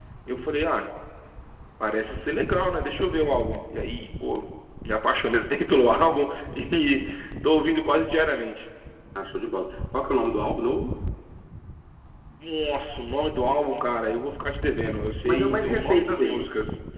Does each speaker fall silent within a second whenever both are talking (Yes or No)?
No